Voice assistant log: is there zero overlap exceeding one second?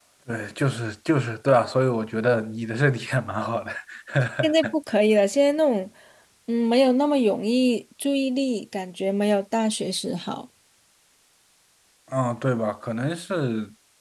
Yes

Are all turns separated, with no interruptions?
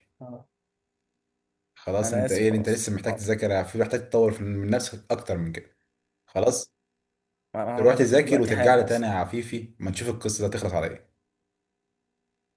No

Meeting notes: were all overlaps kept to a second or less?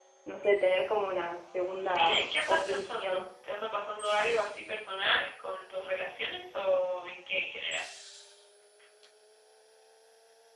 No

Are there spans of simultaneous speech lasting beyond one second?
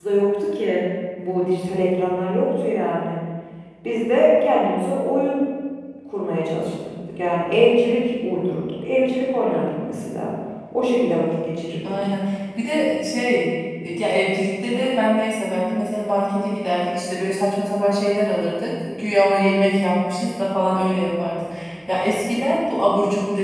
No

